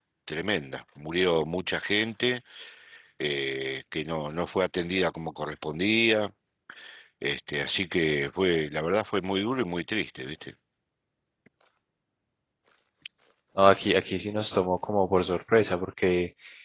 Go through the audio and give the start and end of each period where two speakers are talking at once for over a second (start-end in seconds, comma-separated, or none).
none